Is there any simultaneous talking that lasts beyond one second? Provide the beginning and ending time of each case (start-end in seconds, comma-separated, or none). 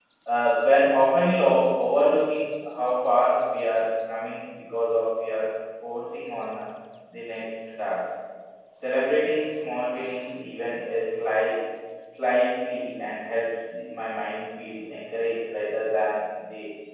none